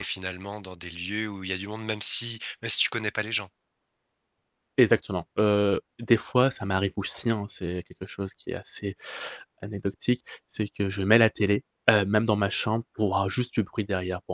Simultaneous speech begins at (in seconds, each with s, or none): none